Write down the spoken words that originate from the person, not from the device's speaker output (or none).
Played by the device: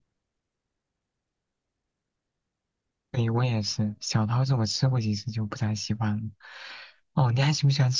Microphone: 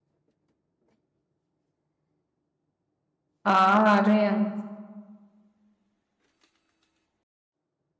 啊，这样